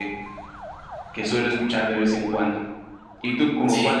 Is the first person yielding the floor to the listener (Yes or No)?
No